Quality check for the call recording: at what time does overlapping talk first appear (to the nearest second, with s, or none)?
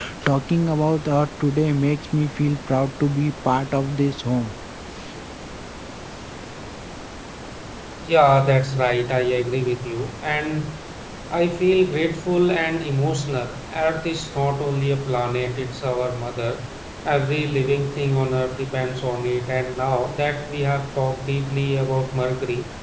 none